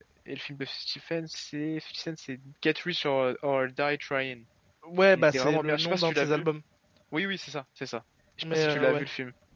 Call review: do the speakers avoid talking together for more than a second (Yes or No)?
No